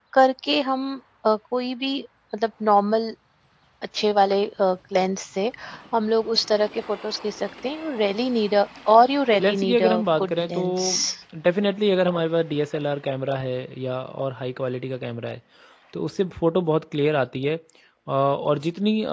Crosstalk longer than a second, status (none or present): present